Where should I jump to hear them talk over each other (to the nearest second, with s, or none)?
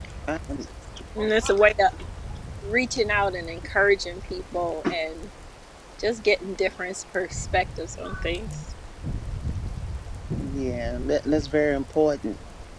none